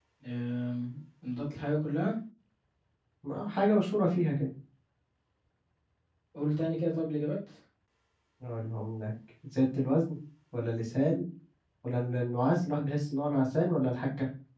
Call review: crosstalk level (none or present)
none